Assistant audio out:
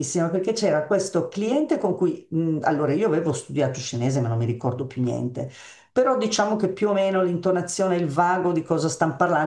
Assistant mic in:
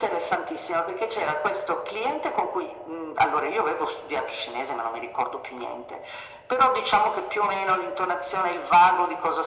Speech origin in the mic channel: echo only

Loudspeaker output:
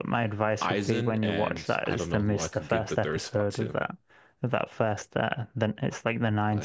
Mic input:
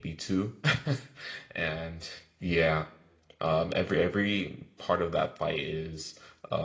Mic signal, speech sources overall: user only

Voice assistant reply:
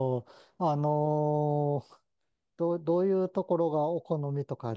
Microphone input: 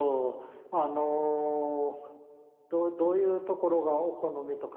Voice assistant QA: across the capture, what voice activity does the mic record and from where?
echo only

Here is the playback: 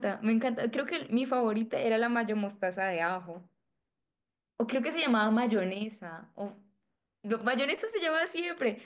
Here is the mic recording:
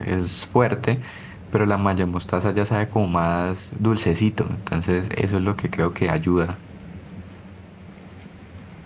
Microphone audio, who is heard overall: user only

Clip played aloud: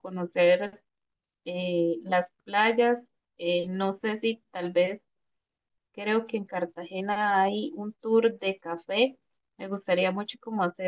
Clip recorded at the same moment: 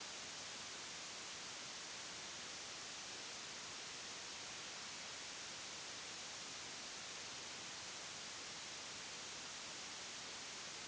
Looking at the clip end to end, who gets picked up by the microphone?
neither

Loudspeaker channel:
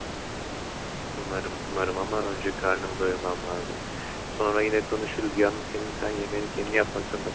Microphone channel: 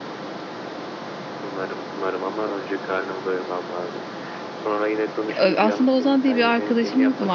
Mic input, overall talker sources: both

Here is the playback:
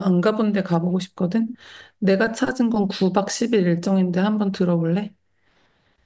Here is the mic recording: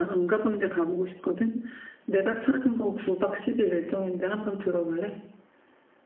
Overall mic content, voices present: echo only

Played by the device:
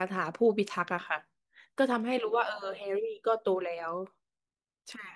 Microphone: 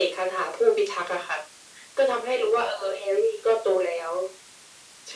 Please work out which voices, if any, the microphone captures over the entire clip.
echo only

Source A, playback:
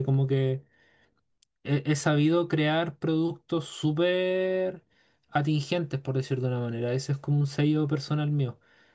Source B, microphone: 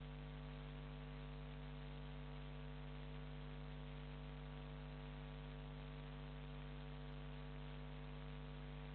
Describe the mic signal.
neither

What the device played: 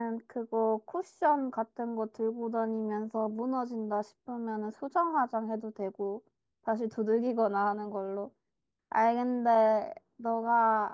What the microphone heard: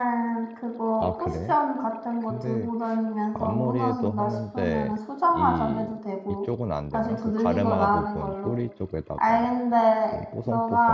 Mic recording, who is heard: both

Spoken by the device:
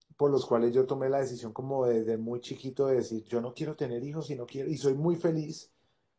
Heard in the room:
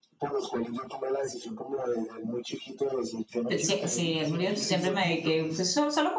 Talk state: both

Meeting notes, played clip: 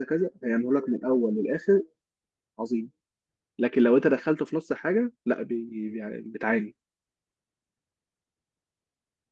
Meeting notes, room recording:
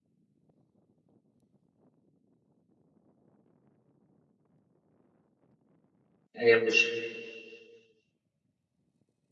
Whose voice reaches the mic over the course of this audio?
user only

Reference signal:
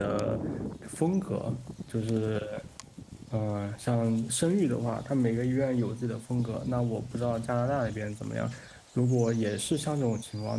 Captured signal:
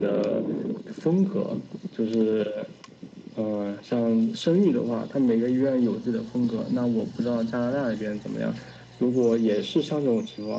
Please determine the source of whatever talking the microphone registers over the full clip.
echo only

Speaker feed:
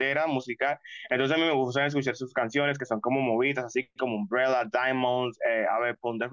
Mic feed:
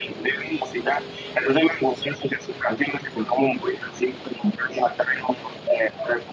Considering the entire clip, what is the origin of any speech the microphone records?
echo only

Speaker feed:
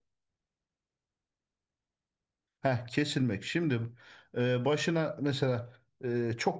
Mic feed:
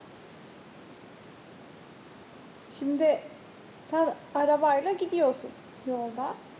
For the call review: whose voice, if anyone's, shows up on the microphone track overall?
user only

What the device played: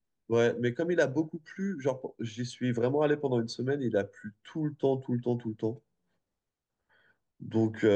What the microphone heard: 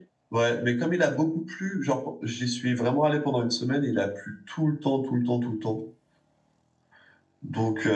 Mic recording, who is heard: echo only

